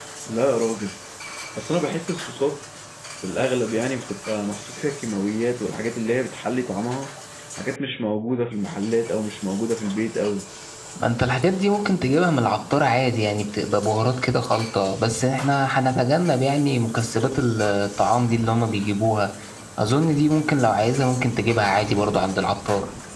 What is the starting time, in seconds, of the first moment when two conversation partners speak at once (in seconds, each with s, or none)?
none